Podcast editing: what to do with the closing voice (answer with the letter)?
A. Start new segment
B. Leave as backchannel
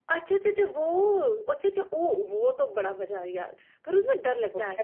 A